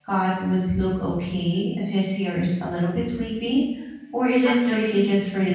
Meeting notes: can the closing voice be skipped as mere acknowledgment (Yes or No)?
No